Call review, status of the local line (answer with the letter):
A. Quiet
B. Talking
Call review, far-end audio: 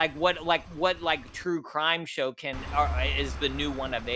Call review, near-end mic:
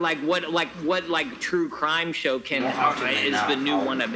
B